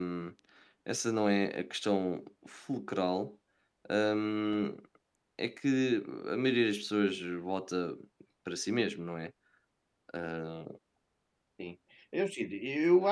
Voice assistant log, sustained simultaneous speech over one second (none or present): none